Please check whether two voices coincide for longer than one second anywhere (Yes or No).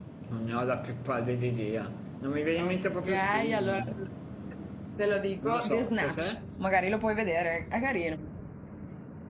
Yes